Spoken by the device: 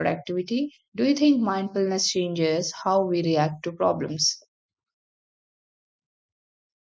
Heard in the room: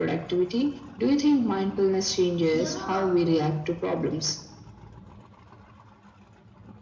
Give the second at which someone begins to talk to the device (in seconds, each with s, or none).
2.5 s